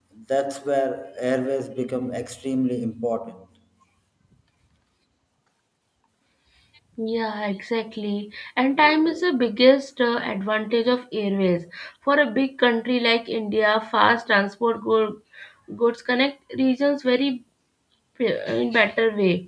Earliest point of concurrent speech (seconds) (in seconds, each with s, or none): none